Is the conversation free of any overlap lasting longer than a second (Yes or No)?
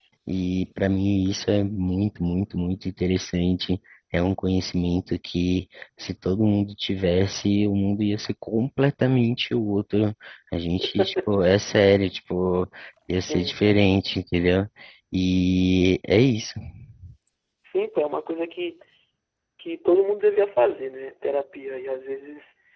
Yes